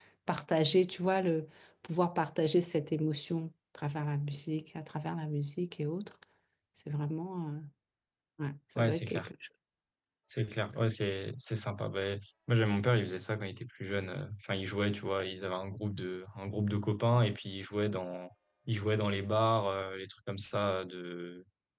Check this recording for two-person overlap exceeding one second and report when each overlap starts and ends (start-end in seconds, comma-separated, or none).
none